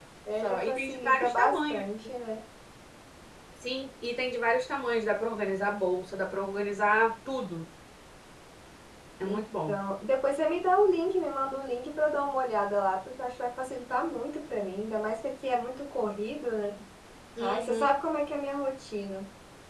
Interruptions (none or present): present